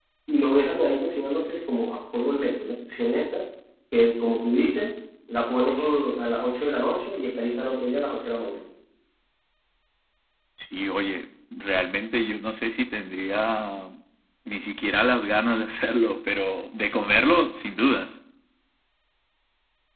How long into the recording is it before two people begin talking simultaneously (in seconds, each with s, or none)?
none